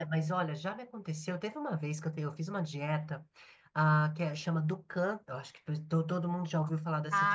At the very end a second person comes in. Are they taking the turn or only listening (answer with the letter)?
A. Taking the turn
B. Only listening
A